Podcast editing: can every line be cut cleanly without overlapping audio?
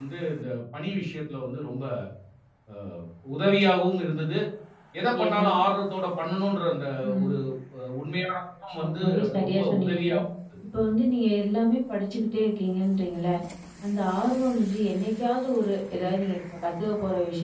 No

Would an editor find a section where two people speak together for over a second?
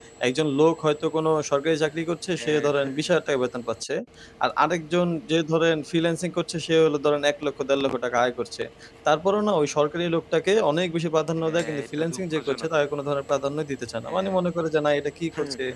Yes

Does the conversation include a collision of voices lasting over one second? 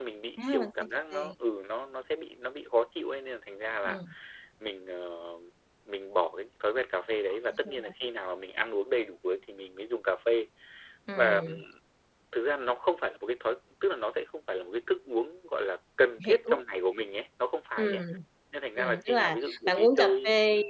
Yes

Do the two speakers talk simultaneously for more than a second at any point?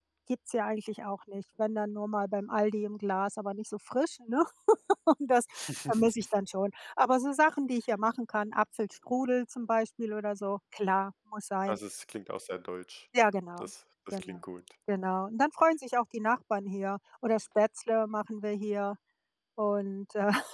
No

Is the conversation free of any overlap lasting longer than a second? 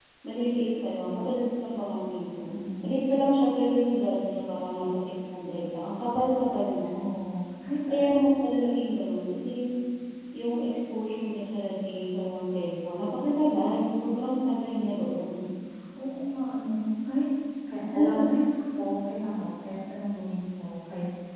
Yes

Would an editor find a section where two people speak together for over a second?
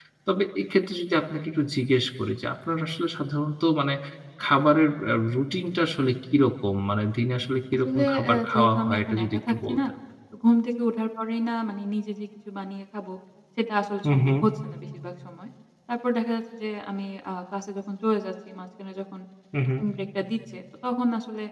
Yes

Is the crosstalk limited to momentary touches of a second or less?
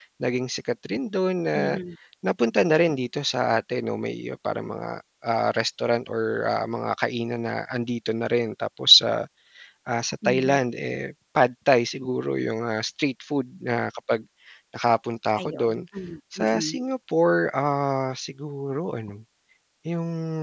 Yes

